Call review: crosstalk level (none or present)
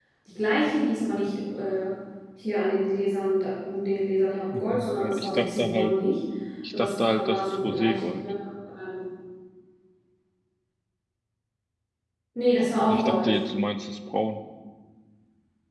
present